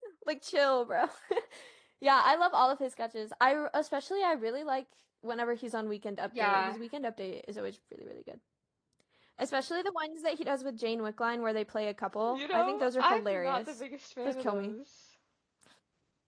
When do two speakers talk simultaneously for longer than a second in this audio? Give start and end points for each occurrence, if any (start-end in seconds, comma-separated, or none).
12.3-13.7